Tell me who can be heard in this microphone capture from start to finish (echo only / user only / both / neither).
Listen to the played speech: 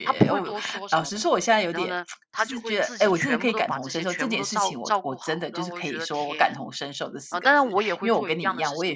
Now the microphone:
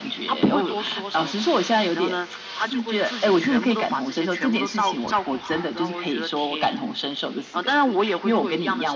echo only